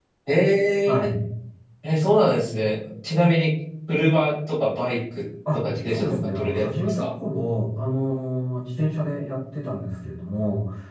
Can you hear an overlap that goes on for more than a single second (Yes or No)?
Yes